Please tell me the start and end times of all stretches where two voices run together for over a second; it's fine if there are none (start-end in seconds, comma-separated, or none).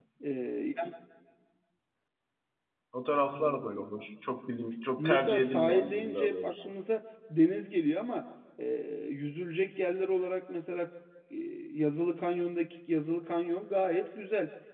5.0-6.7